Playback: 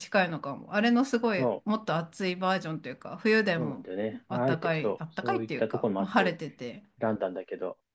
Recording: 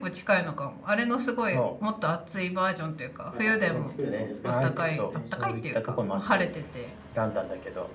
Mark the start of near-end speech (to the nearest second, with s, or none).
3 s